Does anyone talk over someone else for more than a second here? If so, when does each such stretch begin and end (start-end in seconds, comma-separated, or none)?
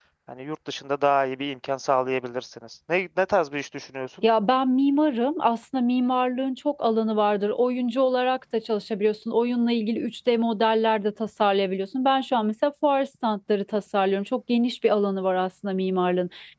none